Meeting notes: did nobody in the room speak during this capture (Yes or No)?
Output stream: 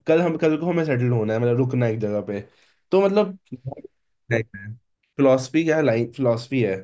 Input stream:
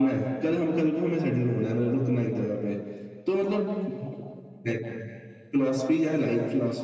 Yes